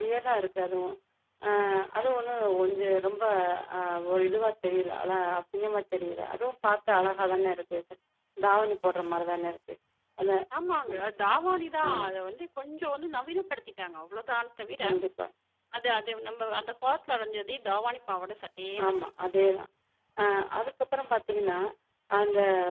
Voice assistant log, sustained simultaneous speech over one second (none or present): none